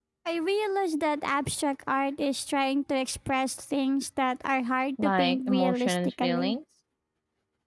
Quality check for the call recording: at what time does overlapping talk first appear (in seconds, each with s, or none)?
5.0 s